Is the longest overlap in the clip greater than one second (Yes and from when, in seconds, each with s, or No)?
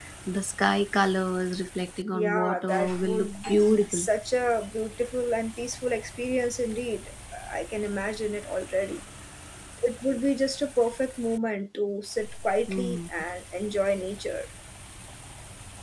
Yes, from 2.1 s